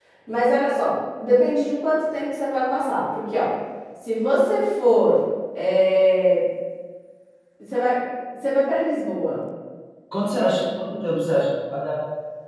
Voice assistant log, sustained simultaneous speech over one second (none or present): none